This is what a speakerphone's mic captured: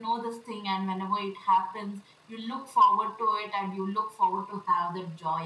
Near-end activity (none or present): none